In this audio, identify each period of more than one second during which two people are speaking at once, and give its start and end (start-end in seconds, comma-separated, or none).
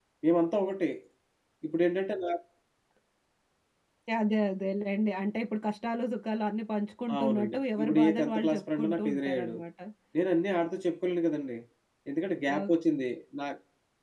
7.1-9.6